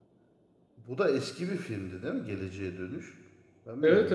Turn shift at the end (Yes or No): Yes